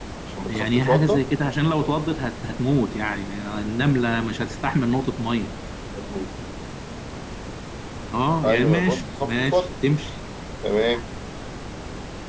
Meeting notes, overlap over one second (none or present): present